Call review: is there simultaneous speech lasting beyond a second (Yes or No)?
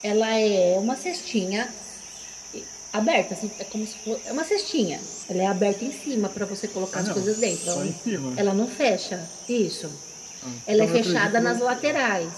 Yes